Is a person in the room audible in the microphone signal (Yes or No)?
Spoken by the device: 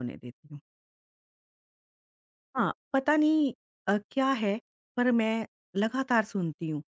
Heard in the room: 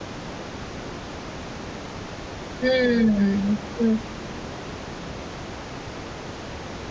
Yes